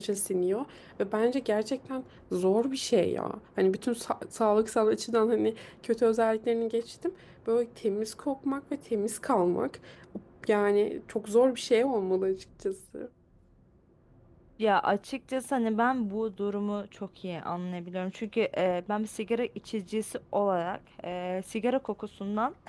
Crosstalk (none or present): none